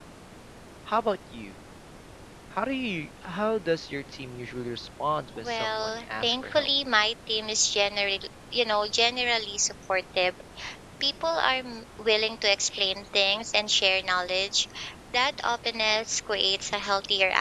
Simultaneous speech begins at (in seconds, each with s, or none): 5.4 s